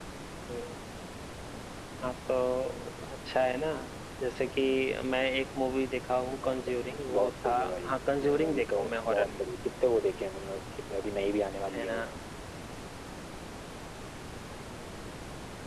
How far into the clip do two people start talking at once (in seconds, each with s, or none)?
6.4 s